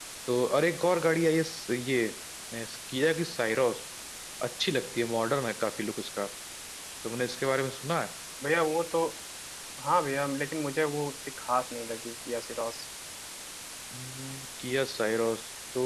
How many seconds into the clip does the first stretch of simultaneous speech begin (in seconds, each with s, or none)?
none